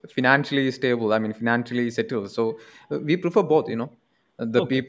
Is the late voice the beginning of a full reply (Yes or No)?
No